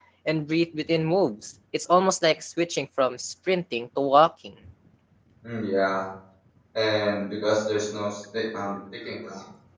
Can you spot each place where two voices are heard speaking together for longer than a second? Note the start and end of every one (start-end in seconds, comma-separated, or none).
none